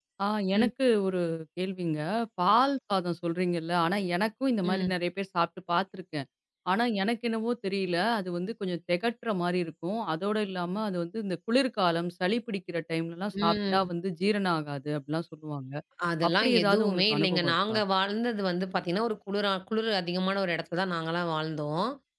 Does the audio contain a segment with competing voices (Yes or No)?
Yes